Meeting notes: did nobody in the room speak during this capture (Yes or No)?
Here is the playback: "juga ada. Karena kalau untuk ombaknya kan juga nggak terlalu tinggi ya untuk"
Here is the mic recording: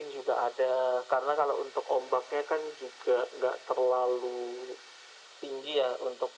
Yes